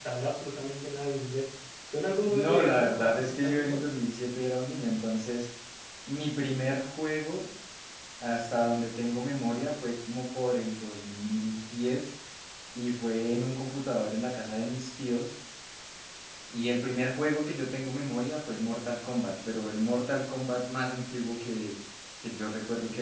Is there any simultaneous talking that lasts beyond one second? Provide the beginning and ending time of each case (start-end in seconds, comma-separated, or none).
2.3-3.8